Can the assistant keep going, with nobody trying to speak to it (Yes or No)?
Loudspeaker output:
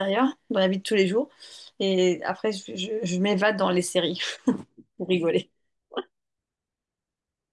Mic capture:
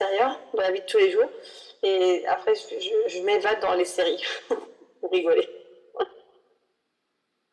Yes